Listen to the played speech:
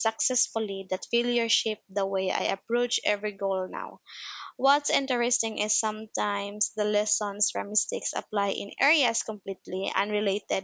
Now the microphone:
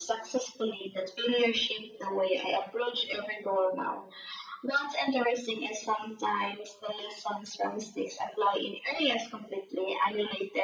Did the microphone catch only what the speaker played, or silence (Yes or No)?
Yes